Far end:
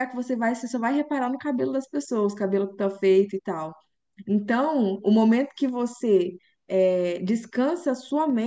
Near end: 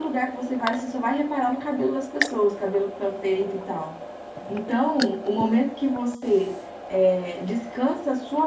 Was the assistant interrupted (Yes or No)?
No